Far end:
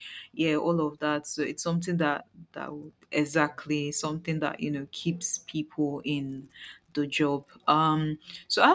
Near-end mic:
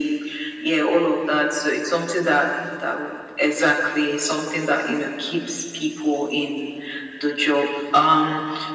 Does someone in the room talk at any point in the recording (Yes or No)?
No